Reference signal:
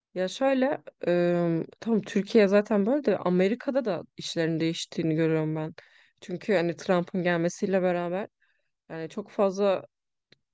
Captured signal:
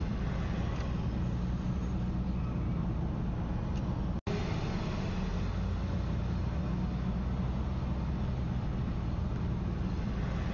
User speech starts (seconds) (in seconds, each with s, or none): none